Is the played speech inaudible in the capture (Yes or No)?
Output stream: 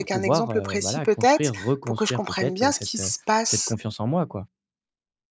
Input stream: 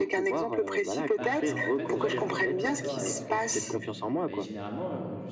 No